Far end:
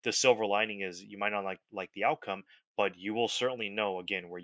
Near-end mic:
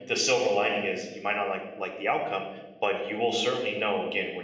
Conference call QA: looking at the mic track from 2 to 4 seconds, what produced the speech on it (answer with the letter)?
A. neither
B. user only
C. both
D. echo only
D